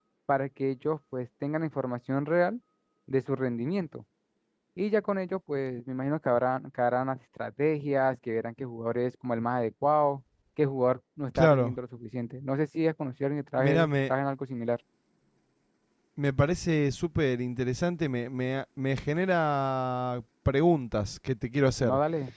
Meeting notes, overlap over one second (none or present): none